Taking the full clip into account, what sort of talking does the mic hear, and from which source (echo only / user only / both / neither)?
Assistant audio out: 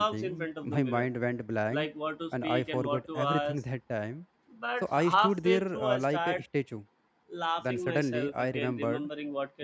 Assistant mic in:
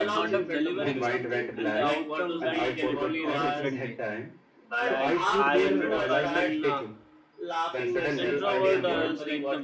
both